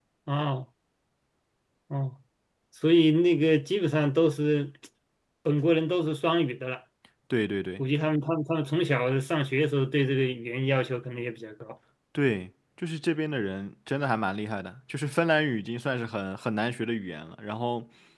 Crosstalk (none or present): none